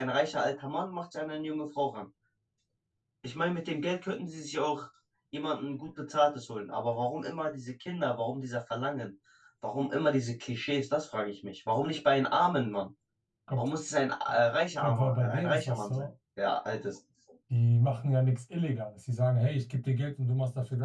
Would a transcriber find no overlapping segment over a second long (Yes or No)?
No